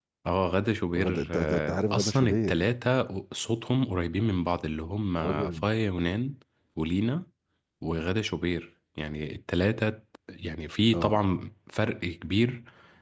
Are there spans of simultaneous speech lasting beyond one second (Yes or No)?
Yes